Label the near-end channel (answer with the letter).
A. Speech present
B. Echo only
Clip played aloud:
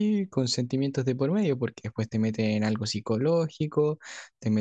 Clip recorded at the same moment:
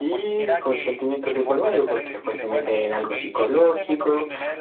A